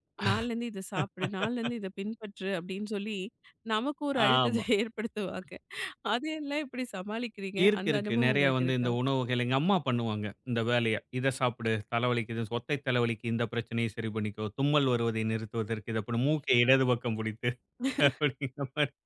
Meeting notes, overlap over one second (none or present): present